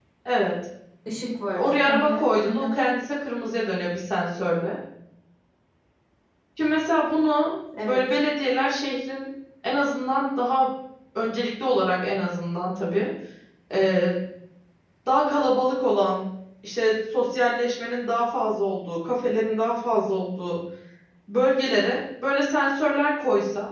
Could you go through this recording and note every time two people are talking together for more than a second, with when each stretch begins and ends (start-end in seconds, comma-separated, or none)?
1.5-2.8